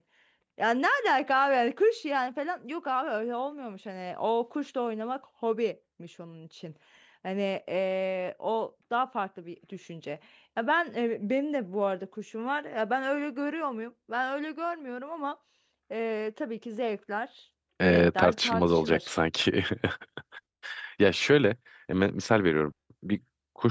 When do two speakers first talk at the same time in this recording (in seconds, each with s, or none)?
17.9 s